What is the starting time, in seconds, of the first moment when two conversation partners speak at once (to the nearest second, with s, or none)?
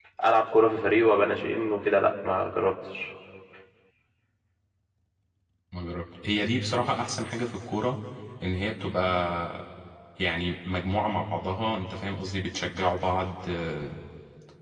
none